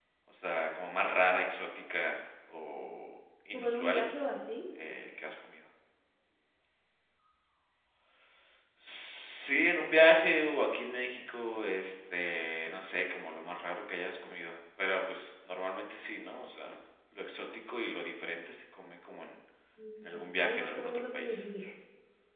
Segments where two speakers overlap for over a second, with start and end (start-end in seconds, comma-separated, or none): 20.0-21.4